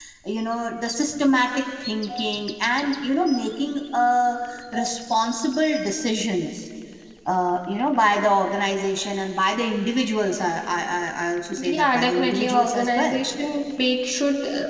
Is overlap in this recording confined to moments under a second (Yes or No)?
No